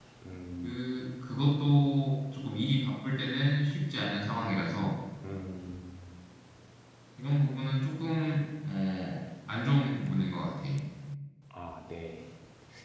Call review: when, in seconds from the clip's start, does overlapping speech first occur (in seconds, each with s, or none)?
none